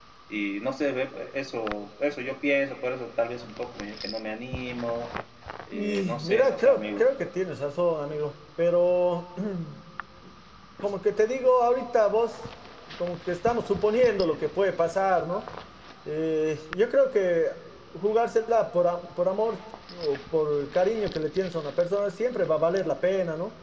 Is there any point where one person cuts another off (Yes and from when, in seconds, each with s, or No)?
Yes, from 5.7 s